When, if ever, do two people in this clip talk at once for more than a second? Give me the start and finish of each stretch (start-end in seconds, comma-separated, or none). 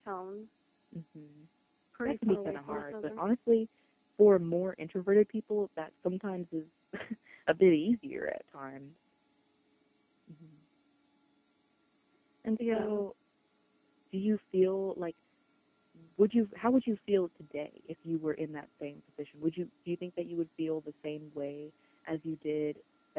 2.0-3.2